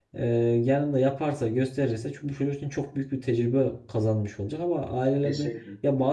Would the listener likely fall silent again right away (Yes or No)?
Yes